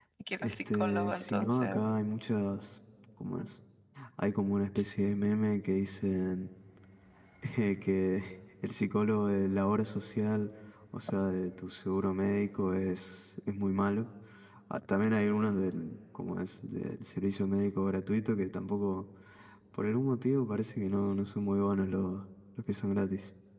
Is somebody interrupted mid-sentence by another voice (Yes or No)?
Yes